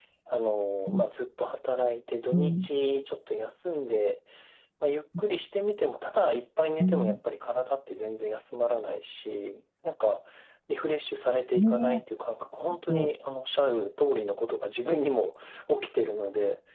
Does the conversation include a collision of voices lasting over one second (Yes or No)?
No